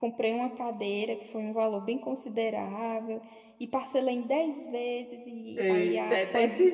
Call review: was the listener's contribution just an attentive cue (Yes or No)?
No